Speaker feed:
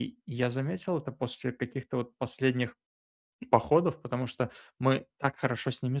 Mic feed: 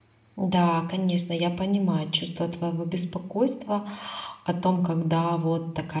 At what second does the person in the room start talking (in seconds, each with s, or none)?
0.4 s